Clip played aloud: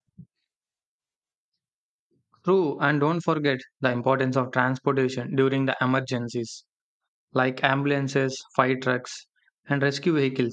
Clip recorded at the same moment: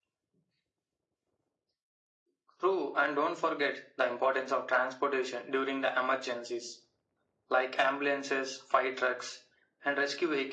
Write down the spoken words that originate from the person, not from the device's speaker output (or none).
none